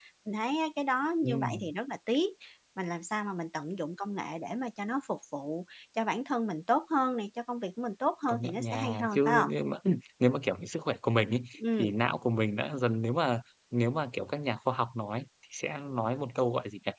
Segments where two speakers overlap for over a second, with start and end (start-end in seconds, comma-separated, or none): 8.3-9.5